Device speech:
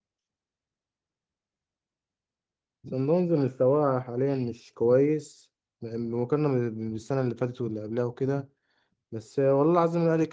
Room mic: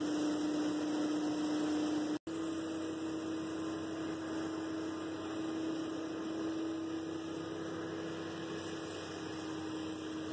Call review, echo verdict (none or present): none